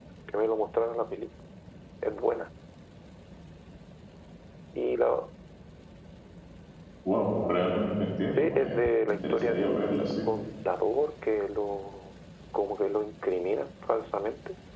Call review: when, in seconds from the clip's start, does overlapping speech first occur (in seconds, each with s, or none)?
8.4 s